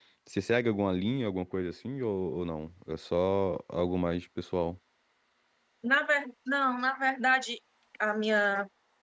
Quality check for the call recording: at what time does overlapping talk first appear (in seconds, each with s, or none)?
none